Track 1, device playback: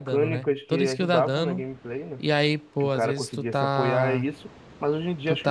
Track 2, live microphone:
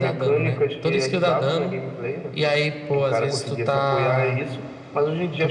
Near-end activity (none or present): none